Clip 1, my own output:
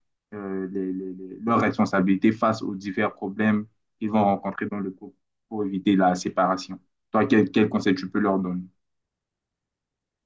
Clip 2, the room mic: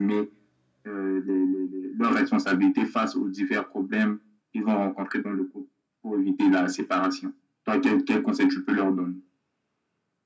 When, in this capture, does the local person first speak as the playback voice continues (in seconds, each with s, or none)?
none